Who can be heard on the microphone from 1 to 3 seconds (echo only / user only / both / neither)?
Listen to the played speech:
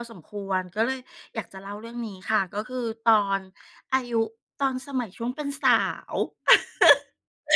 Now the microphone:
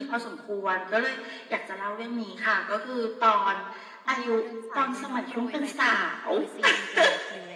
echo only